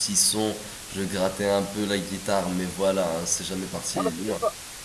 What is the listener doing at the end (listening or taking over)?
taking over